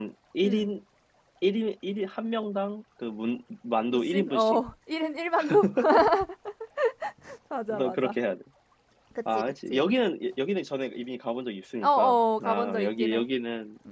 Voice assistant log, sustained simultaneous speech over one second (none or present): present